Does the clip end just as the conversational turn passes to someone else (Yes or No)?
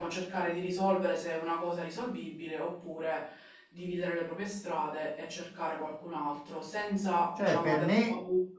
Yes